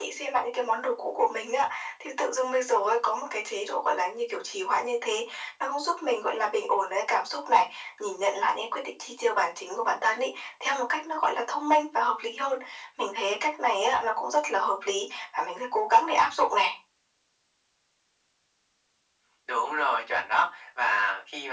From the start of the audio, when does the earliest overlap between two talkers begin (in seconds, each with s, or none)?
none